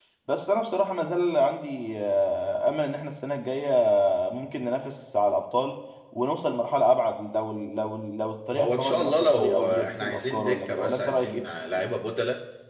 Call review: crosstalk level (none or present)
present